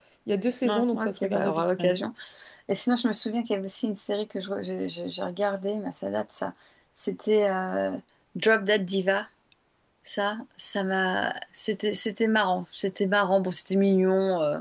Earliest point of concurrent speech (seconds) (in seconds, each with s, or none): 0.6 s